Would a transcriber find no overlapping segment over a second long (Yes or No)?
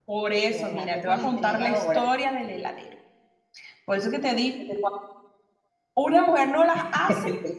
No